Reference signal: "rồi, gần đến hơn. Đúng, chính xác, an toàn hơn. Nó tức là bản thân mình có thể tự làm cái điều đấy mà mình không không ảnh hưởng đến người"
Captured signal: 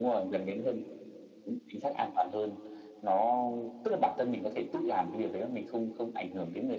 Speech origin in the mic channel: echo only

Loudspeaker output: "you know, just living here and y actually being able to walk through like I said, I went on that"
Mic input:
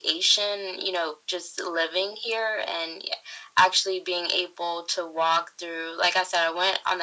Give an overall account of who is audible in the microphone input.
echo only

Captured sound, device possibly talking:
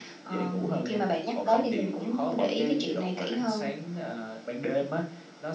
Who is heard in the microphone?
echo only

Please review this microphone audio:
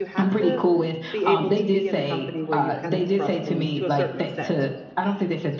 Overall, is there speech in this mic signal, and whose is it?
both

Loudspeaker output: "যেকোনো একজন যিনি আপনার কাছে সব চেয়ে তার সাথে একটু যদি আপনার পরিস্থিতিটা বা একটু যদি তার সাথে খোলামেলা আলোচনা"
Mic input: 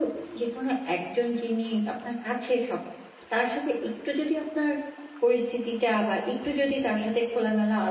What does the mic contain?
echo only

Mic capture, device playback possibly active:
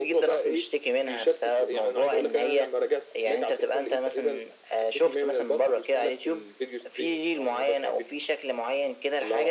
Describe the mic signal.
echo only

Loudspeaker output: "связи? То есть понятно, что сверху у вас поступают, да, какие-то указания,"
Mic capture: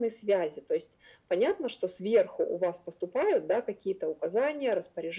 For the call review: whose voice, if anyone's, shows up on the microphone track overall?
echo only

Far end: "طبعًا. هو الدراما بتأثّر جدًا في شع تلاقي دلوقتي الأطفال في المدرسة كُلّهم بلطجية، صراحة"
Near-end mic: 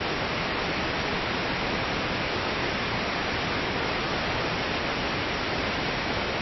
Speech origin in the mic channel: neither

